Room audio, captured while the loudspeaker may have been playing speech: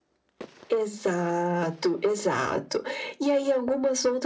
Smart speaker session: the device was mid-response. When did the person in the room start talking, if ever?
none

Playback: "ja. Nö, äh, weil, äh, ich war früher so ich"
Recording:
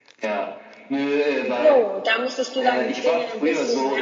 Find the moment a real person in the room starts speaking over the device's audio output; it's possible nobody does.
1.6 s

